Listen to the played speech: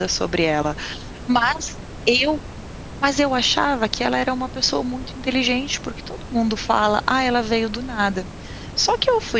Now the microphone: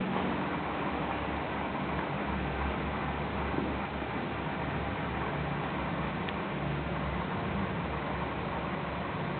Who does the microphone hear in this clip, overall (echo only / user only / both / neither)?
neither